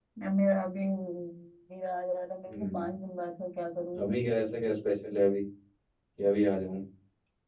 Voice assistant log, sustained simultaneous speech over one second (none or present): none